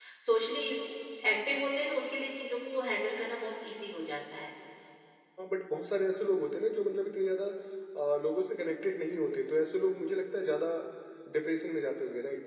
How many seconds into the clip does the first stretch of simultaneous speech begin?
none

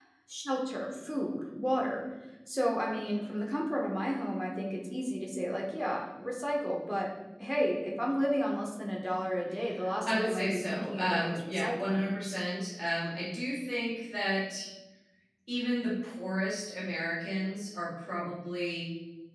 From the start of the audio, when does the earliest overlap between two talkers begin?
10 s

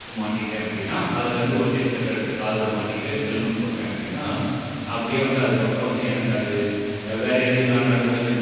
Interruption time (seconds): none

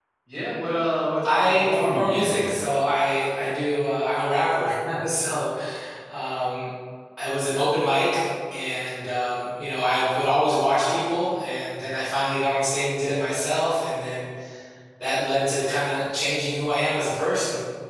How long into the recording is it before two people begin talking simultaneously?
1 s

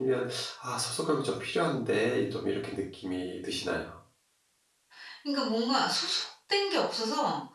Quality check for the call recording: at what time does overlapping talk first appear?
none

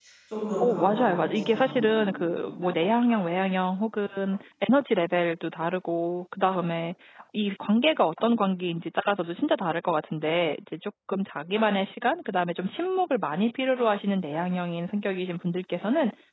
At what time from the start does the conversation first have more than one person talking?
1 s

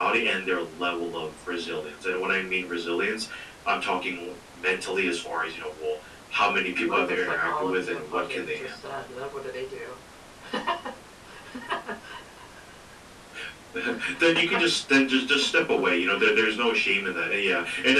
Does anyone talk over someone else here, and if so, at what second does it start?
7 s

